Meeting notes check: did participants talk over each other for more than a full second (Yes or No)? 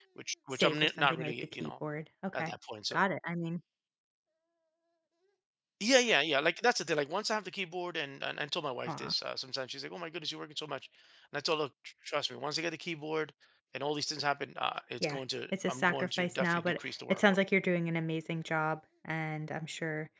Yes